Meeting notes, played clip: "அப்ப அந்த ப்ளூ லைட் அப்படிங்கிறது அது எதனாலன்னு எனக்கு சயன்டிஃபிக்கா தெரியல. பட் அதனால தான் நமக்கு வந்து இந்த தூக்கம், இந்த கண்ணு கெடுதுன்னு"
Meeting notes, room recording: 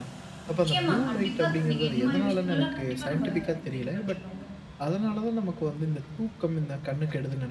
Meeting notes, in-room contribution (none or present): present